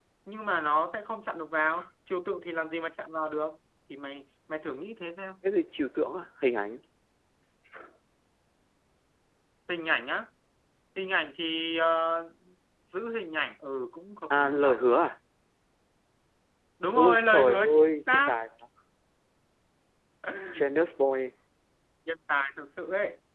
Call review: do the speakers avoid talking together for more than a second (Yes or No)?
No